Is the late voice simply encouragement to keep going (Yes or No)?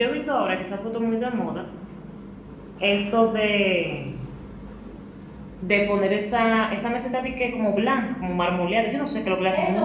No